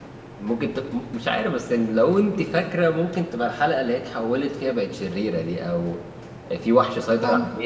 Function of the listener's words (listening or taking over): listening